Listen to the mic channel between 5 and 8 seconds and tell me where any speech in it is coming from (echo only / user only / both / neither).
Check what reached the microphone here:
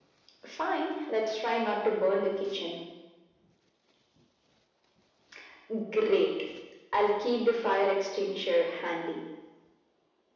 echo only